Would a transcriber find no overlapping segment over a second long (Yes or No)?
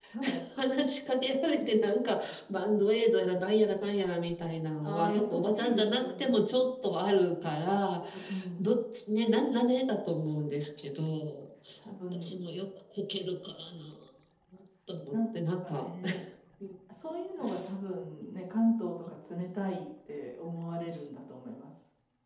No